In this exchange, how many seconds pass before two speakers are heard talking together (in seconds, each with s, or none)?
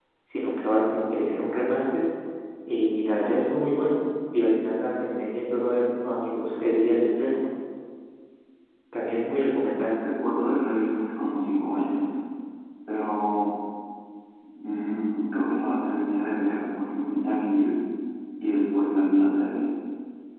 none